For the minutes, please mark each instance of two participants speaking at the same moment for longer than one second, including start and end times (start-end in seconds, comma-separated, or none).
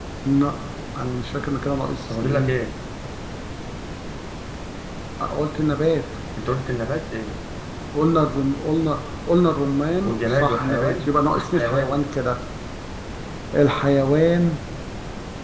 10.0-12.0